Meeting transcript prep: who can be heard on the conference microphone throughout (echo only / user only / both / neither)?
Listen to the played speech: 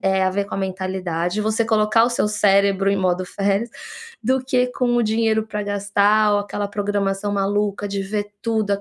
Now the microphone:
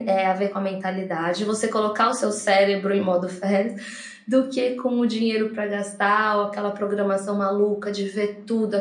echo only